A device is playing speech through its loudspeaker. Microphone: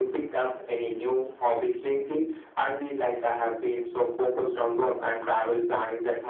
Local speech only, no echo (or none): none